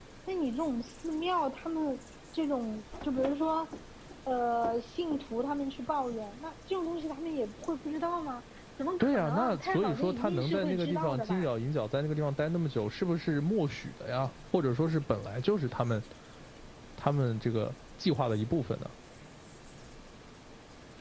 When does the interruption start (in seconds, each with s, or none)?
9.0 s